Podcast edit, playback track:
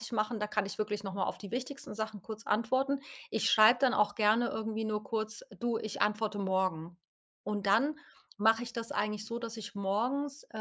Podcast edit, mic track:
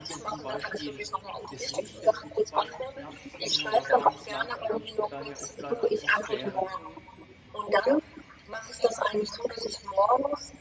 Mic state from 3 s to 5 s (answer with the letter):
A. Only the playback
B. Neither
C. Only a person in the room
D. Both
D